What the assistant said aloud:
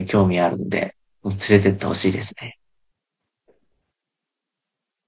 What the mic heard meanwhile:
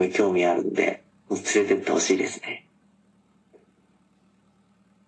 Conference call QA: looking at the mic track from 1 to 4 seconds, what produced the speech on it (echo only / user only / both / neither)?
echo only